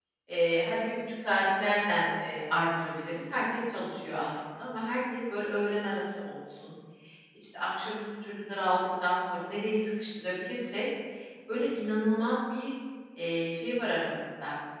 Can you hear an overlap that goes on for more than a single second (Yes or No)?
No